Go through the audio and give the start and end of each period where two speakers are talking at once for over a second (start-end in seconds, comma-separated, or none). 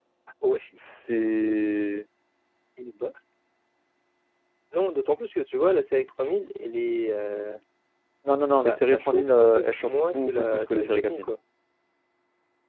8.6-11.3